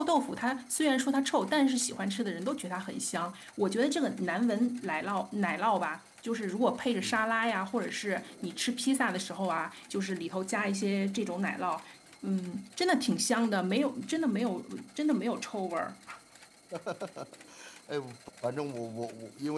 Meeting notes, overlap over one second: none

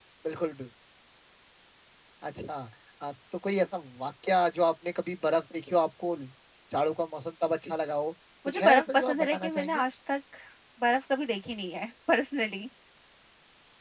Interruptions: present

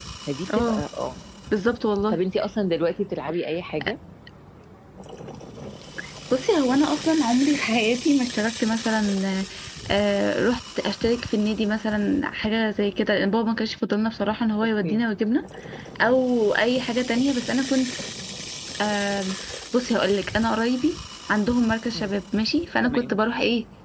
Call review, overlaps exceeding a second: none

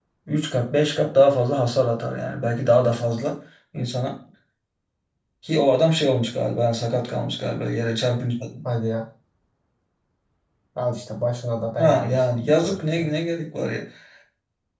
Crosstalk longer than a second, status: present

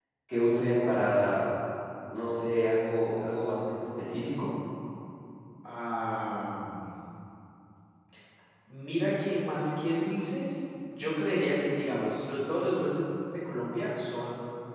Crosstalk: none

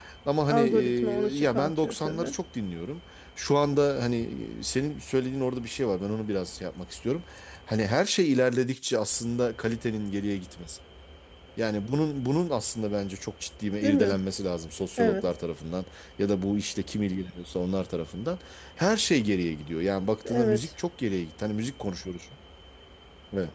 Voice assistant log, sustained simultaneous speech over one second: present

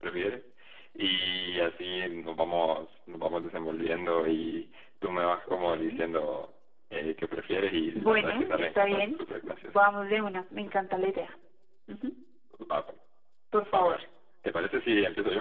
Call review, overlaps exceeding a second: present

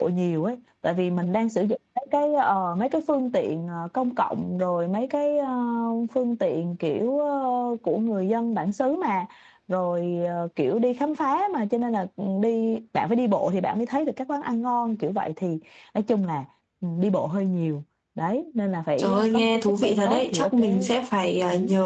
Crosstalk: present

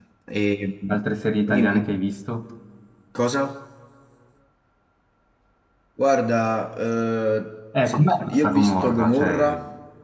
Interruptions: present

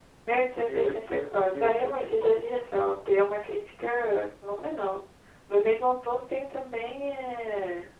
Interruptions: present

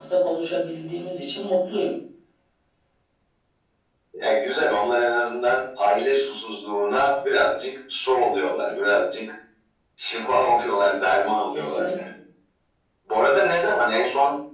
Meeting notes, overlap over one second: none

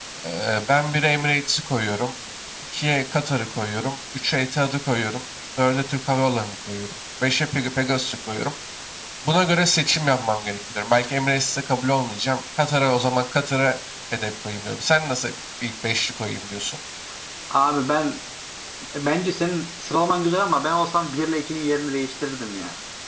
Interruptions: none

